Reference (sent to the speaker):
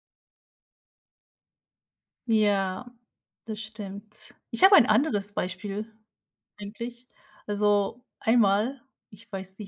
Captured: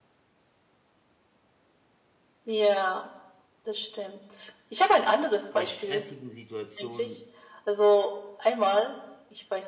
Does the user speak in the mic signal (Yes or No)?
Yes